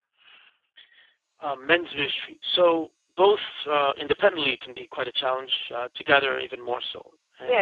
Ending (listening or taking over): taking over